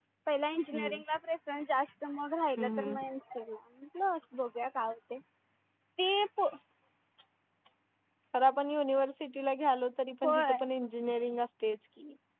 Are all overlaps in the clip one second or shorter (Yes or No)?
Yes